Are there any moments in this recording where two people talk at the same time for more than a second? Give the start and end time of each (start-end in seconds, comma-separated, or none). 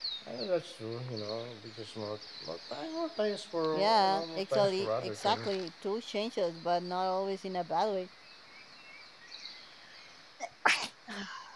4.0-5.6